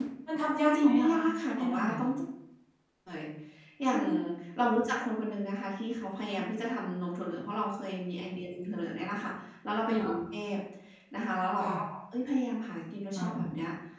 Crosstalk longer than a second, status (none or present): present